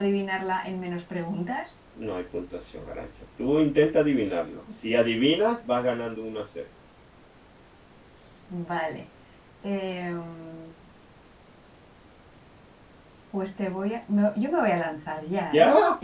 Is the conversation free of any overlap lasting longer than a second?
Yes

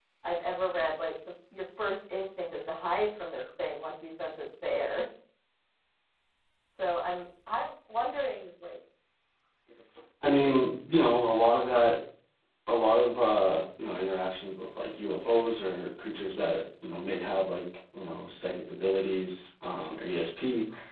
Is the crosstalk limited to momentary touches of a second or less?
Yes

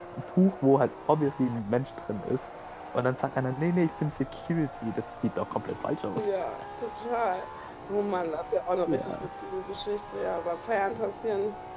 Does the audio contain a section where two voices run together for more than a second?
No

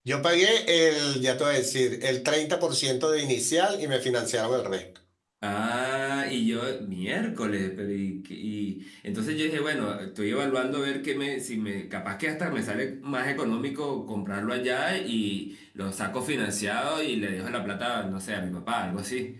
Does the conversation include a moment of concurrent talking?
No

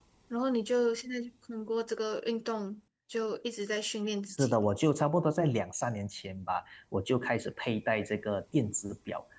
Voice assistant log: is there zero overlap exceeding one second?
Yes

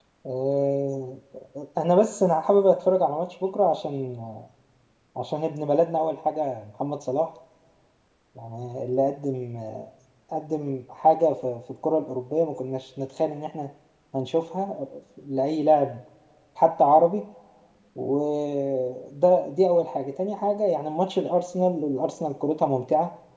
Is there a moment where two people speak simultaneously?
No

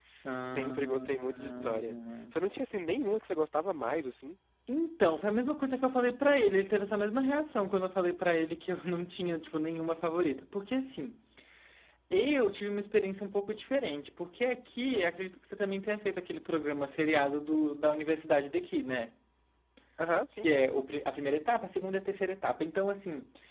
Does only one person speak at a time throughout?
No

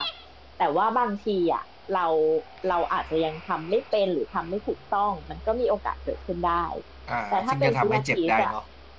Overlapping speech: Yes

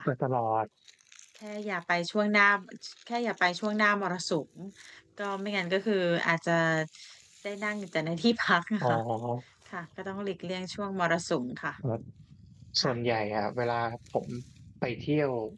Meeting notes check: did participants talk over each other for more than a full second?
No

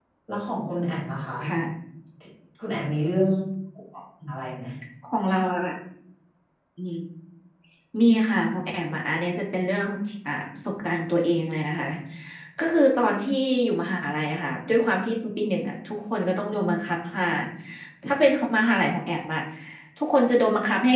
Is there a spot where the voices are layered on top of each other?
No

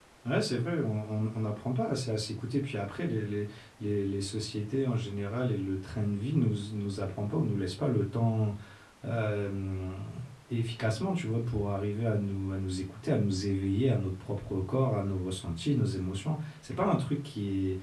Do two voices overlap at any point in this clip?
No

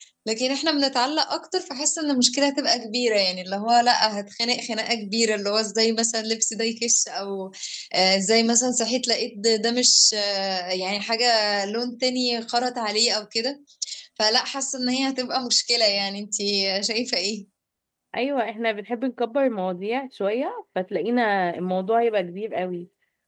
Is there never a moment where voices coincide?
Yes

